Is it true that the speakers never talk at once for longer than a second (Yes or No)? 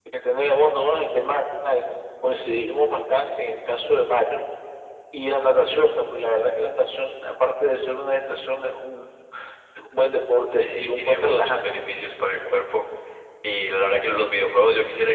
No